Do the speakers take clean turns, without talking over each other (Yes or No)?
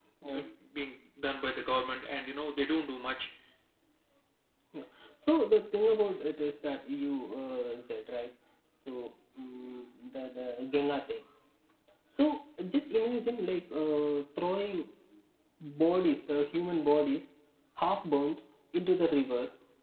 Yes